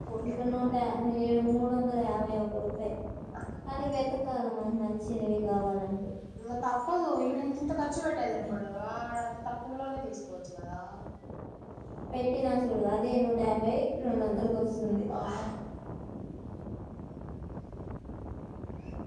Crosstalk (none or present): none